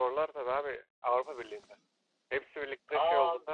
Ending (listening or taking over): taking over